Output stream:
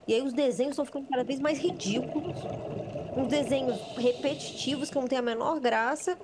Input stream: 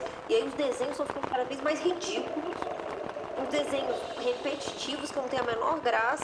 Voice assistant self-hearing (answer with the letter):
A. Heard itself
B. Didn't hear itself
A